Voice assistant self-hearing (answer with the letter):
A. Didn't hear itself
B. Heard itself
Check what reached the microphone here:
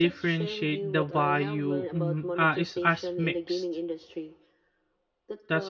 B